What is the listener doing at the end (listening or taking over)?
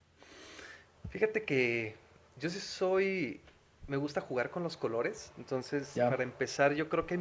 listening